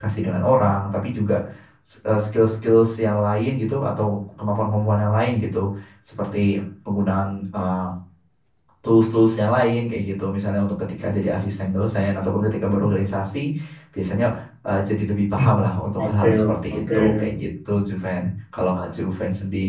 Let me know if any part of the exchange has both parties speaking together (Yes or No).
Yes